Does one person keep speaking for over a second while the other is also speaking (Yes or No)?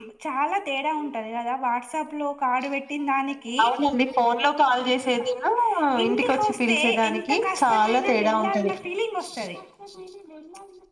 Yes